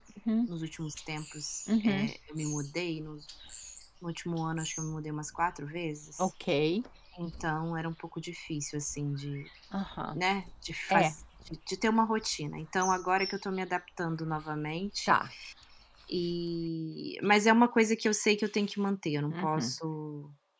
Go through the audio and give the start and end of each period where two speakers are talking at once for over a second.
none

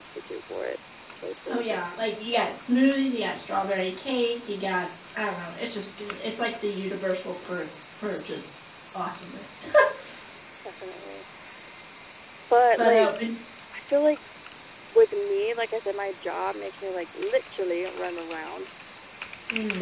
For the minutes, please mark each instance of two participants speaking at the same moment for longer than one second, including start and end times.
none

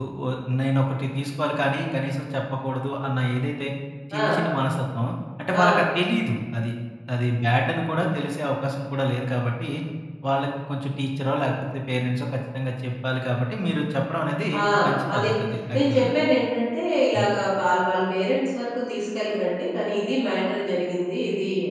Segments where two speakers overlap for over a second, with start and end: none

